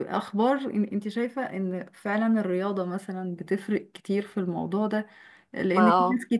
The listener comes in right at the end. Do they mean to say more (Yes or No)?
No